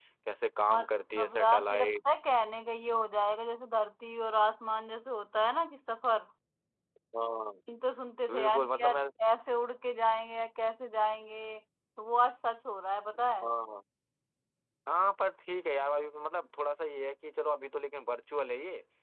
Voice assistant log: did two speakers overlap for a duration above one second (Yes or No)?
Yes